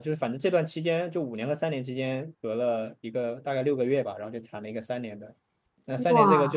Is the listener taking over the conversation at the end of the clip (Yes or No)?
No